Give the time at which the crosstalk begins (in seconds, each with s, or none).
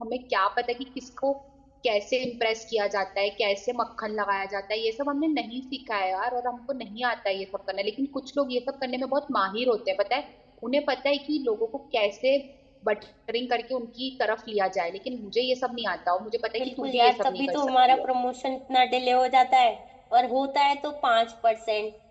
16.6 s